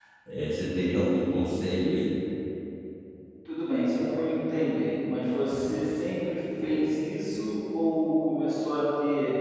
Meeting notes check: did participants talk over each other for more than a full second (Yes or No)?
No